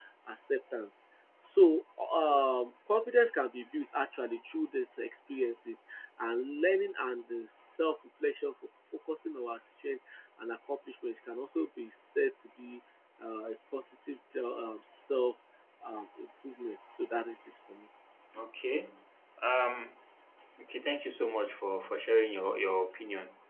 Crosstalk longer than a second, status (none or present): none